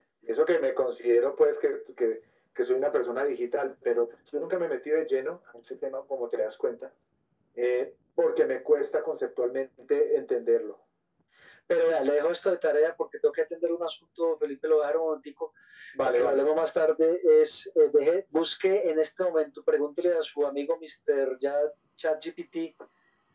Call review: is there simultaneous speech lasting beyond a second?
No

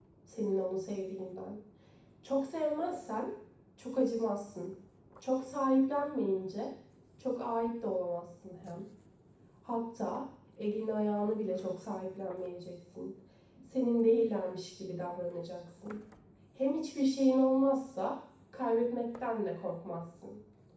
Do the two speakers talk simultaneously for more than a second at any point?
No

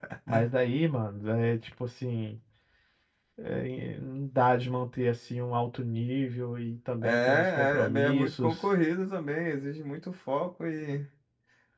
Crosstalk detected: Yes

